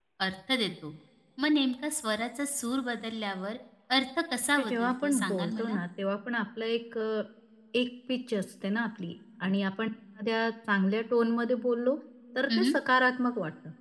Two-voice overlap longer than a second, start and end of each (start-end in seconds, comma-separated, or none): 4.6-5.8